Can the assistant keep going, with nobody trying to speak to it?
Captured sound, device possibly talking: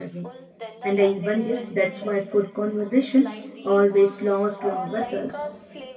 No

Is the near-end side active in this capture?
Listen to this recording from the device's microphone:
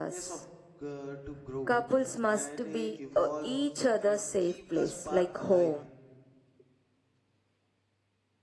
Yes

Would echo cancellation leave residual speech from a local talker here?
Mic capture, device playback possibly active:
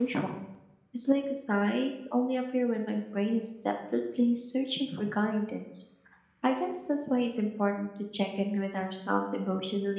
Yes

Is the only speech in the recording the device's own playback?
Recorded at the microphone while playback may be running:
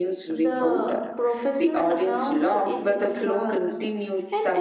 No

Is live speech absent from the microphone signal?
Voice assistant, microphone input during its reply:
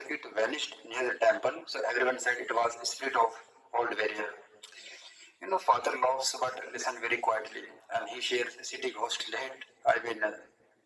Yes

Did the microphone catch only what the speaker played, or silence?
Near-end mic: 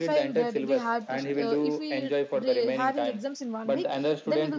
No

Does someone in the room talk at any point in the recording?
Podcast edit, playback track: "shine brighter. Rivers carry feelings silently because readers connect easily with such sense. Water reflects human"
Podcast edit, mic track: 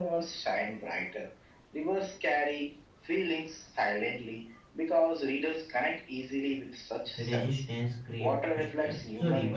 Yes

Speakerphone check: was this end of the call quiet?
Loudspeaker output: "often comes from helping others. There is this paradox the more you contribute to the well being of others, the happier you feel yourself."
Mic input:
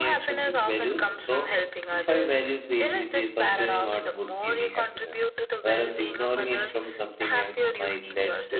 No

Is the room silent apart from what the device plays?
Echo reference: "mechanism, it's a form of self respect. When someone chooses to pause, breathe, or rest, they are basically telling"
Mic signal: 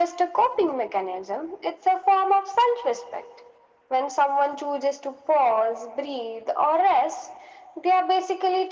Yes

